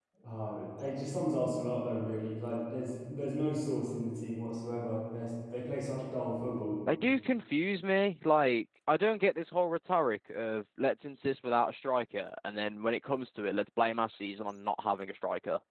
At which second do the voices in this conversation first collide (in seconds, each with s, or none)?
none